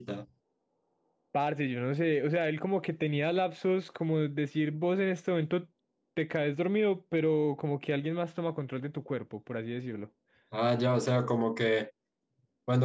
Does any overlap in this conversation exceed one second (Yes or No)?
No